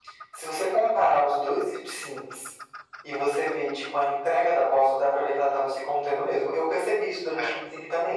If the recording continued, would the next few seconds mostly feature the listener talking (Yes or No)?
No